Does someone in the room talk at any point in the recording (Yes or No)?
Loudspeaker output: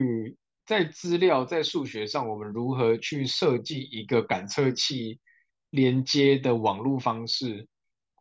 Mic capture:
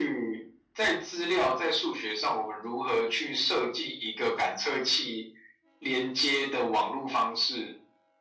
No